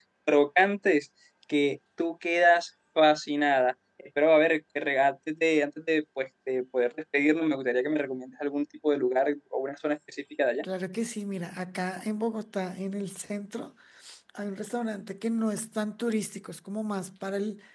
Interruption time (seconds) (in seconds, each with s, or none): none